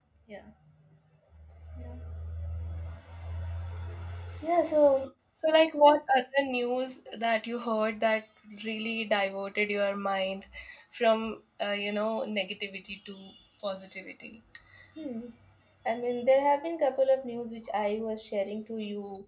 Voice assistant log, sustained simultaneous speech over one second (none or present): none